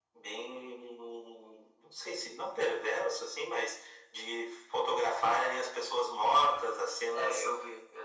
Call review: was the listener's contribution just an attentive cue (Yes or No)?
No